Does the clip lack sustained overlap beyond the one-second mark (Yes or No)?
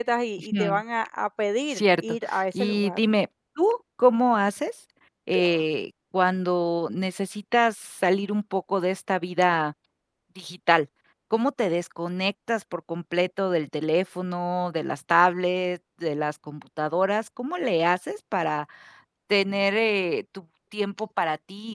No